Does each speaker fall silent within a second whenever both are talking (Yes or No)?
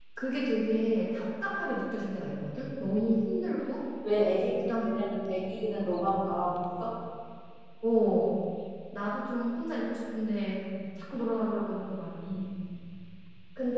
Yes